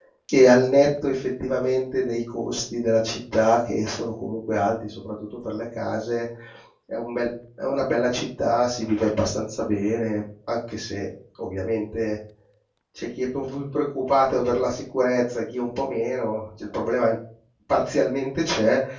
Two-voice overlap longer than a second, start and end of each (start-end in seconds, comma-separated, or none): none